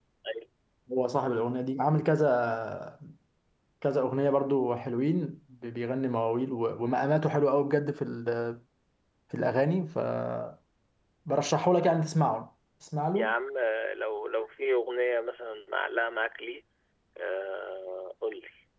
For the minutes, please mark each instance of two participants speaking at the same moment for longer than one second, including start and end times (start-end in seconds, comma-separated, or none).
none